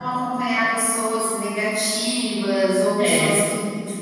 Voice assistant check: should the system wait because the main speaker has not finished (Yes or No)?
Yes